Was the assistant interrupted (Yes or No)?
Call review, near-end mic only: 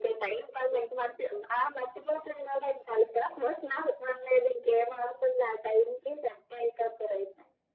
No